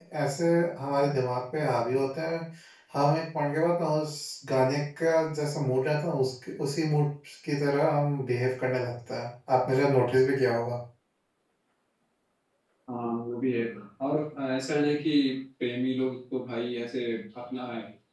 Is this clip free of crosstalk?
Yes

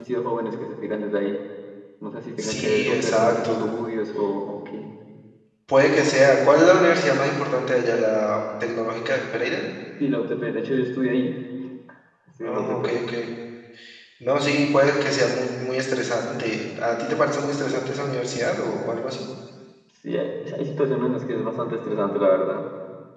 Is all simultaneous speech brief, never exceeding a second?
No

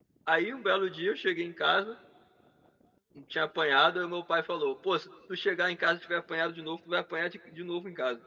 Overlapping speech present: No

